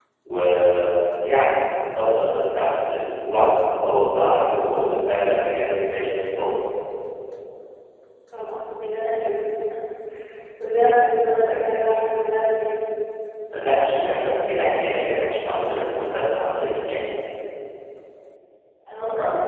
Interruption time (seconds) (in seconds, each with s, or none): none